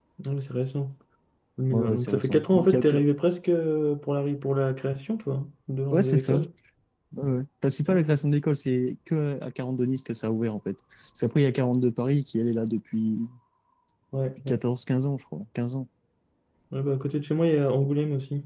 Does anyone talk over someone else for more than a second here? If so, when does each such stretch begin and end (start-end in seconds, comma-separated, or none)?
1.7-2.9